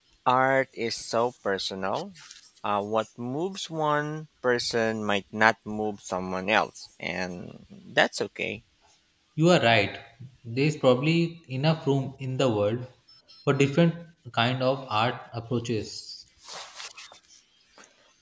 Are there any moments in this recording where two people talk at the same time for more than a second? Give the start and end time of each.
none

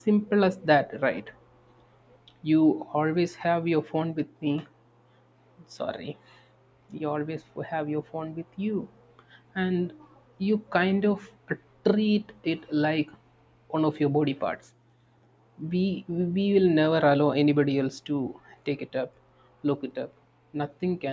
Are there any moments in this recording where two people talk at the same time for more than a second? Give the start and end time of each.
none

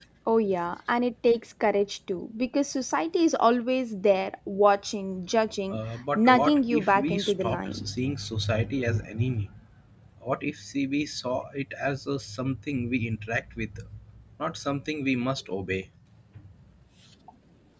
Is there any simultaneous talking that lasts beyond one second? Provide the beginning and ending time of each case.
6.2-7.8

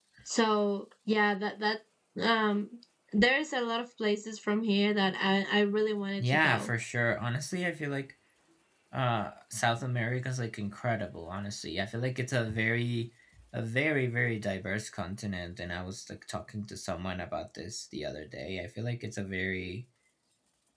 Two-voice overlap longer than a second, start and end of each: none

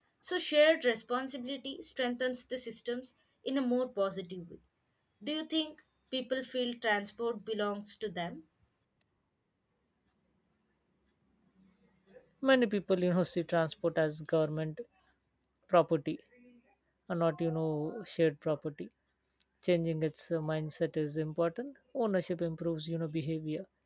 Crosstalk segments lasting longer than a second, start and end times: none

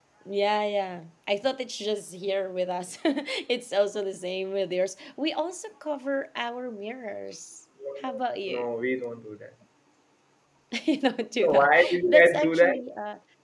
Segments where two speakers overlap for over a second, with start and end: 11.4-12.8

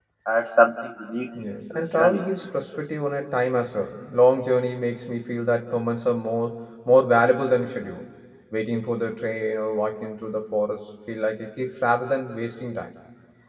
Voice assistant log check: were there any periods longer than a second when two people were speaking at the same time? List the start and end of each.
none

